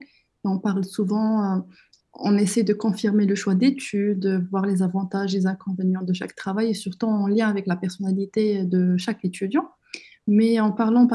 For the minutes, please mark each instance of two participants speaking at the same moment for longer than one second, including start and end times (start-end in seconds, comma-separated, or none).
none